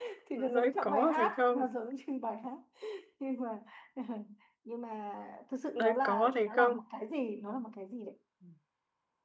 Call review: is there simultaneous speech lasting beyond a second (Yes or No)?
Yes